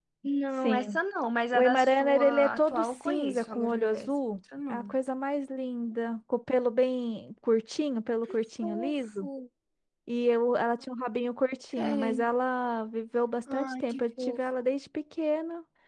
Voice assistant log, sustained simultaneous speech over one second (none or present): present